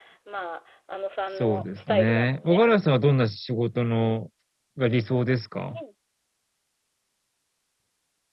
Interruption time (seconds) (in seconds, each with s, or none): 1.3 s